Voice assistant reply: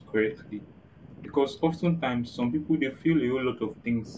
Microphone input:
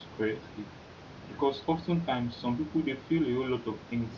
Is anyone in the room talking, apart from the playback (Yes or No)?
No